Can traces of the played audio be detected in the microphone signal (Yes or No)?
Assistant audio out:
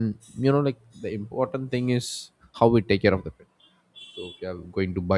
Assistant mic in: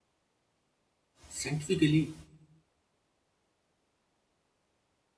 No